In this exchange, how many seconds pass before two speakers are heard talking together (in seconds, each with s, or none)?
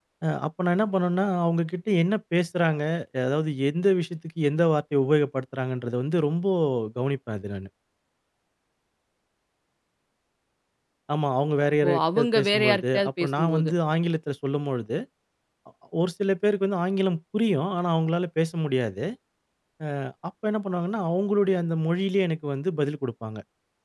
11.9 s